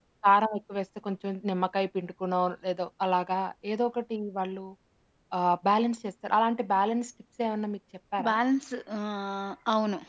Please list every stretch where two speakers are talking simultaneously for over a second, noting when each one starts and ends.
none

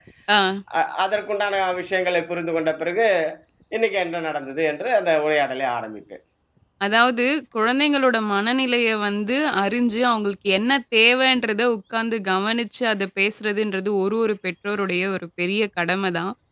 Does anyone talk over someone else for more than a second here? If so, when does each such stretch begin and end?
none

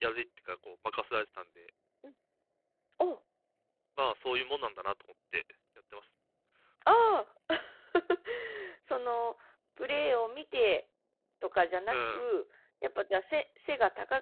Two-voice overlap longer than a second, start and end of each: none

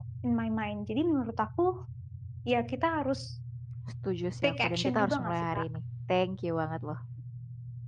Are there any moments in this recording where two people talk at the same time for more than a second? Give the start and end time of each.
4.4-5.6

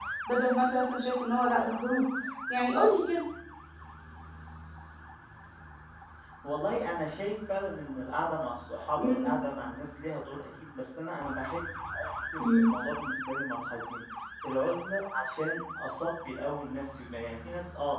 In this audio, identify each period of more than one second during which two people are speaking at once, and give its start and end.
none

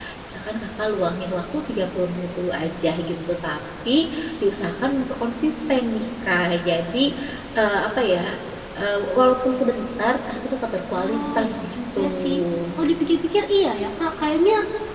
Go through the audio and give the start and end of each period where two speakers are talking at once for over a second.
11.0-12.3

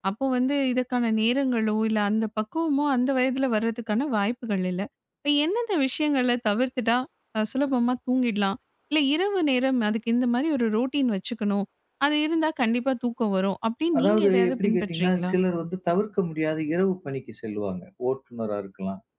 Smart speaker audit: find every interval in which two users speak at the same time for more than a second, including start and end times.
14.0-15.3

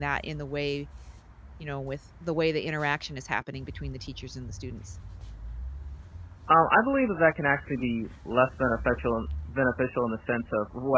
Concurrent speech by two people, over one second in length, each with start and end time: none

